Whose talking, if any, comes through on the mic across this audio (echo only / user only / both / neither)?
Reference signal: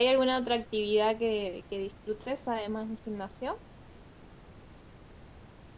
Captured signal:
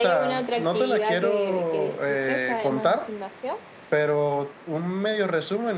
both